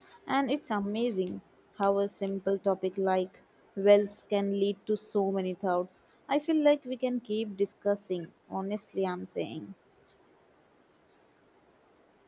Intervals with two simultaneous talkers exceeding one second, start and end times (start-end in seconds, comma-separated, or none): none